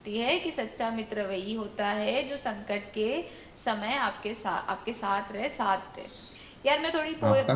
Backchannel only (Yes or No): Yes